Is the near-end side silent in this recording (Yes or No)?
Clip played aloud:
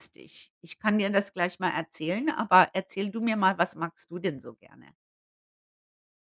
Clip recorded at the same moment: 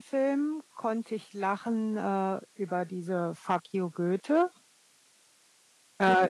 No